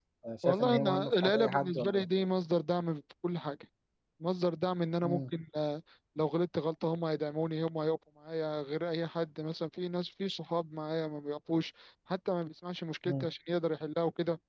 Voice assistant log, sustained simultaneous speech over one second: present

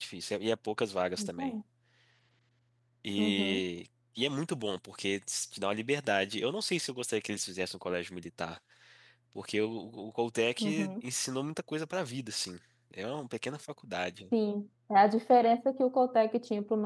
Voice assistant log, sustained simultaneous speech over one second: none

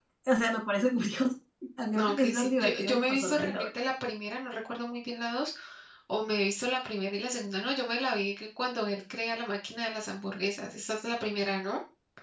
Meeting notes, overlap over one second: present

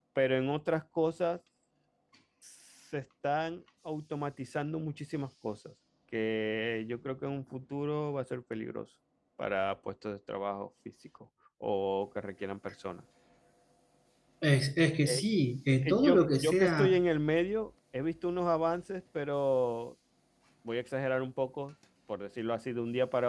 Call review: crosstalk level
present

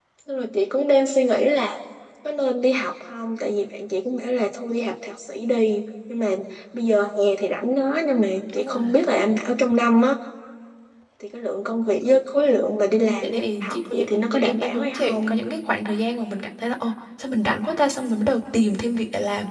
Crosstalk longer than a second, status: present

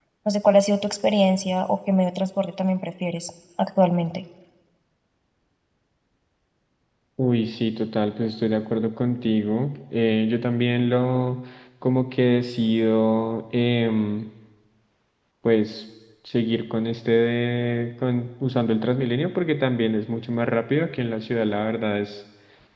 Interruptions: none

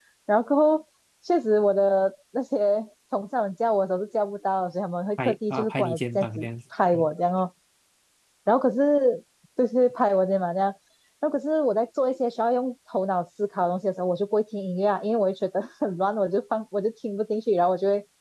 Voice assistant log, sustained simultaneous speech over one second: present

